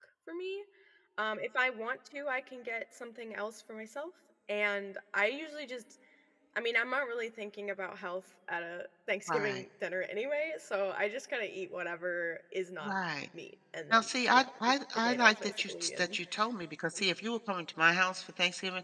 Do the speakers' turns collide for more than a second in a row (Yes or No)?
Yes